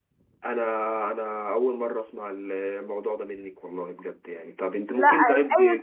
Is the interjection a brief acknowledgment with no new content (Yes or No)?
No